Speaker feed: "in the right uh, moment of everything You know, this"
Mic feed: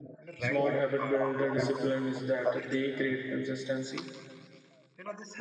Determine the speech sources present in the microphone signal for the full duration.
both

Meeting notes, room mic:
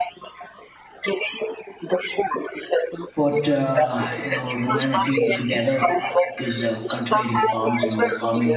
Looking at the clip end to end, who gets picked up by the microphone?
both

